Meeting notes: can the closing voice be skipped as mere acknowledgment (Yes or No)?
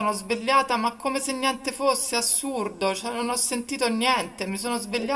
Yes